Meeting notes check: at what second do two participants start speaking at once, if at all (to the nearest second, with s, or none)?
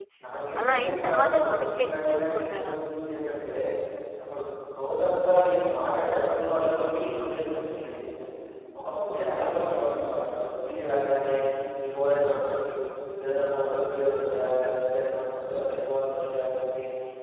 1 s